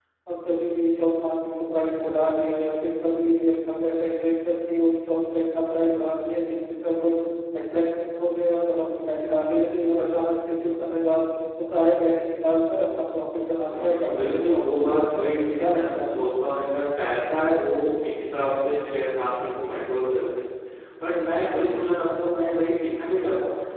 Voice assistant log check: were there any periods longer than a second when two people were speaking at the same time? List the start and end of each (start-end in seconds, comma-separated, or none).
13.8-16.1